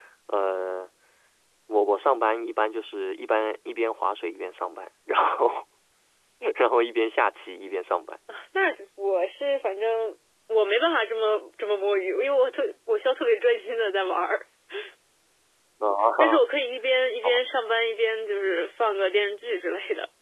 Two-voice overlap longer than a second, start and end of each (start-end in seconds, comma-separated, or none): none